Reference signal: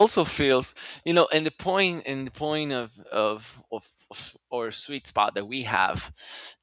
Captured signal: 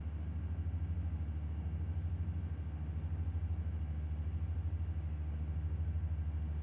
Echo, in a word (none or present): none